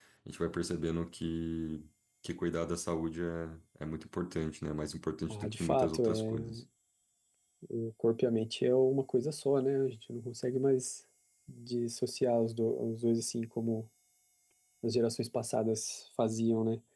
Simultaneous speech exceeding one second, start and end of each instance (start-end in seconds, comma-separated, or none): 5.3-6.6